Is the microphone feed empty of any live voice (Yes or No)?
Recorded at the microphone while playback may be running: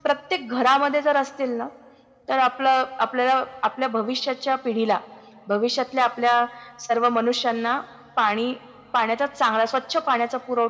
Yes